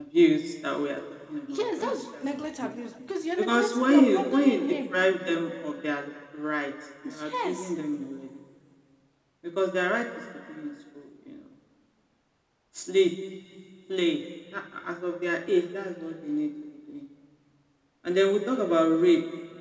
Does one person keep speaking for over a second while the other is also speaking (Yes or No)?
Yes